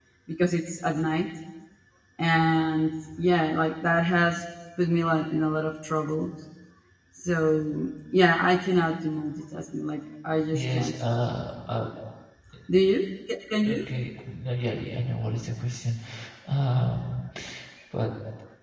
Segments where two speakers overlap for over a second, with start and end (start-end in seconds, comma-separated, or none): none